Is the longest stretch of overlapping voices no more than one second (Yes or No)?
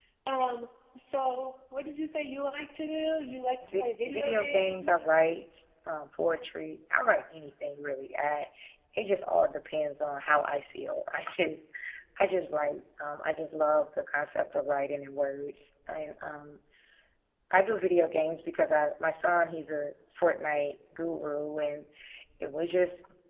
No